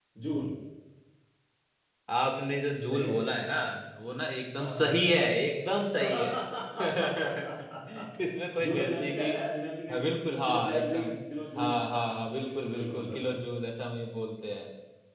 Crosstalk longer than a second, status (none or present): present